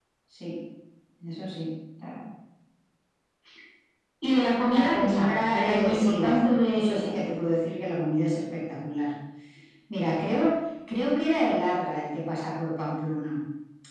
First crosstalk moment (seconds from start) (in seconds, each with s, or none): 4.7 s